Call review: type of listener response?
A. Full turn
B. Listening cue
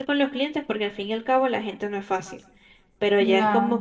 B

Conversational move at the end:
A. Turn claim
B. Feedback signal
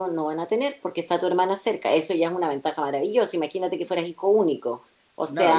A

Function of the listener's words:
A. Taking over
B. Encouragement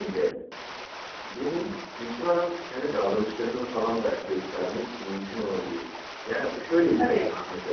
B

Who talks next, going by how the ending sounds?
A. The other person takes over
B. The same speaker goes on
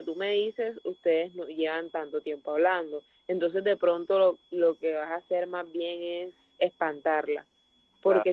B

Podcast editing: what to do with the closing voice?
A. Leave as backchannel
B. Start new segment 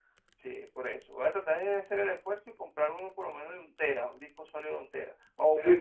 B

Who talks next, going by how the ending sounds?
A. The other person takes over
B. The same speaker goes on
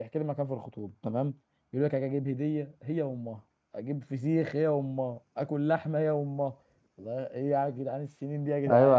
A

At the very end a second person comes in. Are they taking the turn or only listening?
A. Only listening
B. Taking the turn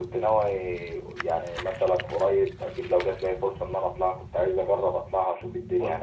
B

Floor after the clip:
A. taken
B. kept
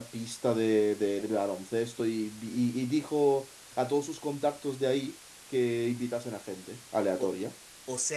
A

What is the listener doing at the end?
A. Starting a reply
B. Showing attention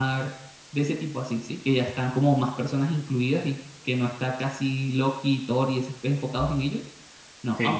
B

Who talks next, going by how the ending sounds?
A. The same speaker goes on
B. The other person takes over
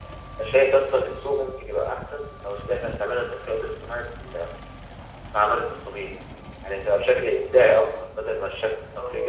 B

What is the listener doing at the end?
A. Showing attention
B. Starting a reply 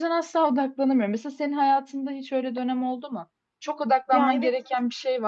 A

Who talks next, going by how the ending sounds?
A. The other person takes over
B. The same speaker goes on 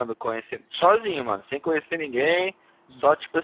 B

